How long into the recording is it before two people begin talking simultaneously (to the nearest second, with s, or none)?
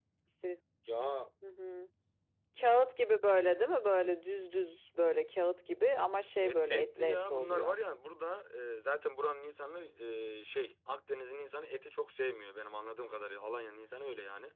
6 s